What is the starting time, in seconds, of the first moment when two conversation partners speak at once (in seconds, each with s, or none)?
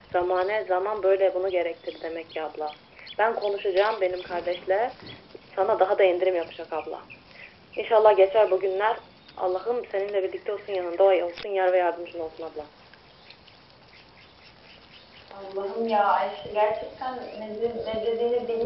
none